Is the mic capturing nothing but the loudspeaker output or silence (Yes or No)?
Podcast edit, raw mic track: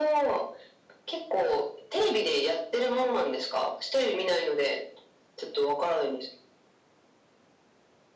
Yes